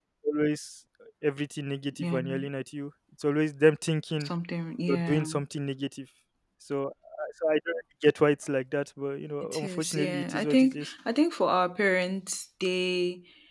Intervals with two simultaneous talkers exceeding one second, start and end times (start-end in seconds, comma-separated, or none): 9.4-10.9